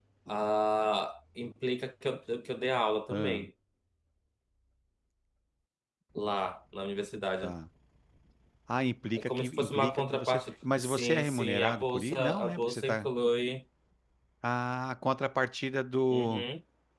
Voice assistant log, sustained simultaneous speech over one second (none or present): present